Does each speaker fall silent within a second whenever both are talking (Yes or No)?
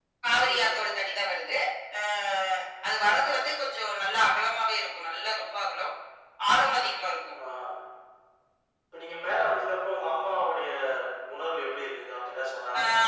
Yes